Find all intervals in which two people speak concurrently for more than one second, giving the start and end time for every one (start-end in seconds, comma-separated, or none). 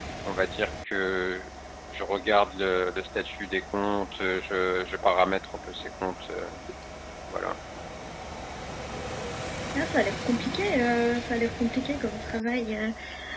none